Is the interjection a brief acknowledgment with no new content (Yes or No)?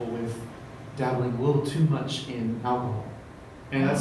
Yes